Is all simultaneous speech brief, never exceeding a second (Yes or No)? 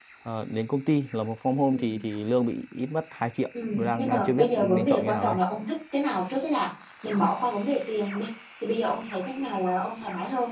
No